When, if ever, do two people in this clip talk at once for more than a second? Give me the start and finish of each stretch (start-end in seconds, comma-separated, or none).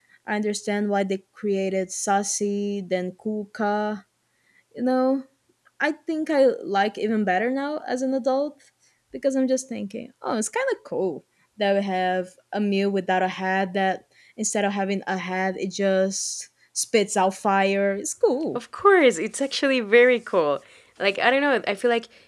none